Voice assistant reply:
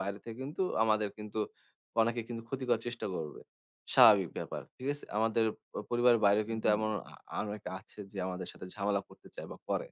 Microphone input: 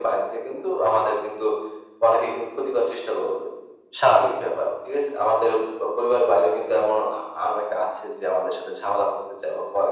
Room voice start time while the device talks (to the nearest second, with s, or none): none